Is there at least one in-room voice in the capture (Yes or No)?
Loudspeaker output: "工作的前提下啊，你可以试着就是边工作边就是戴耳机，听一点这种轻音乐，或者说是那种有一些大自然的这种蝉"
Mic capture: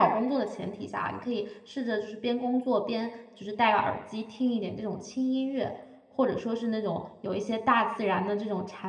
No